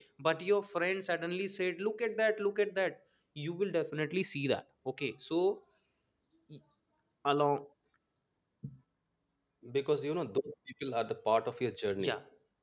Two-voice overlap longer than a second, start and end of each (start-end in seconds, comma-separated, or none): none